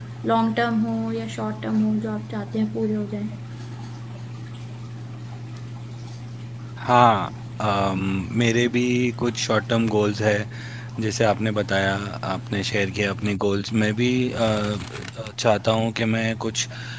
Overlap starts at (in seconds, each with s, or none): none